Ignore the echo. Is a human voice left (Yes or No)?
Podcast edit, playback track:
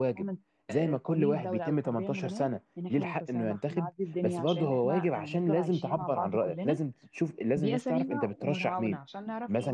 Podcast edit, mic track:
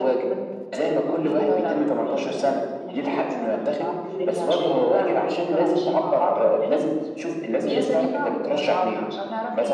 No